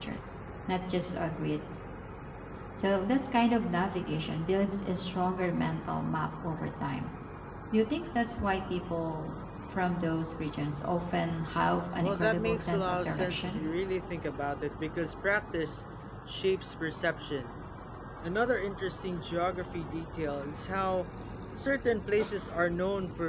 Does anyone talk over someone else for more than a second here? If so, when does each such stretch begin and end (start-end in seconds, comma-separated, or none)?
12.0-13.6